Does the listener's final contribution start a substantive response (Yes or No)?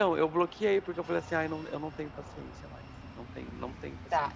Yes